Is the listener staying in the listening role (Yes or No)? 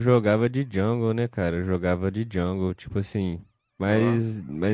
Yes